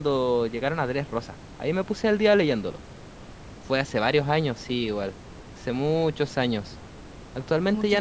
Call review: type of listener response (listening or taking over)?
listening